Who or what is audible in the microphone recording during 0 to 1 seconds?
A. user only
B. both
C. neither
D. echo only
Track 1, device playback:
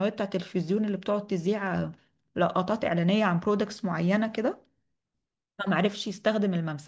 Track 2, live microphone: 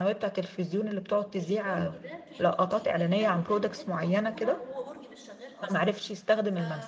D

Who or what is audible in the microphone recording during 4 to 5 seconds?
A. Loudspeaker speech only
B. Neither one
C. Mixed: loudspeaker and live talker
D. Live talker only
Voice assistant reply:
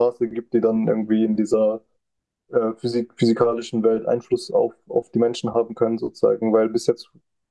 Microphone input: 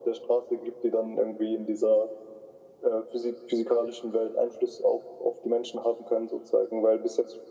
A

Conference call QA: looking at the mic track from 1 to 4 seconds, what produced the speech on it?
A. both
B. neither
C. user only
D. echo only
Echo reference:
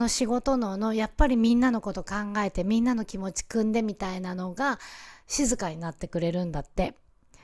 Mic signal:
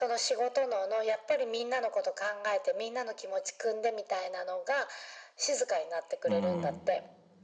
D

